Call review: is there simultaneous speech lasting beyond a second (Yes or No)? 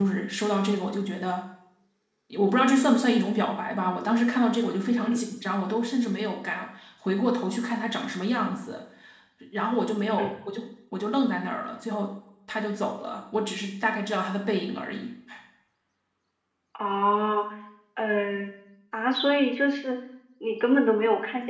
No